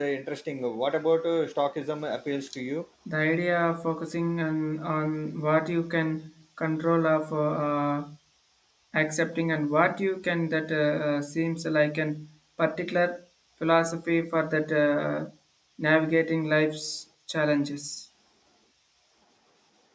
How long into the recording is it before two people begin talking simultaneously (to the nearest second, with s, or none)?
none